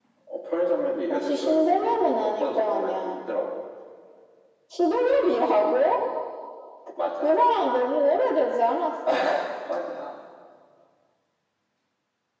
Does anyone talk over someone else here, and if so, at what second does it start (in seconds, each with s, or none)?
1.1 s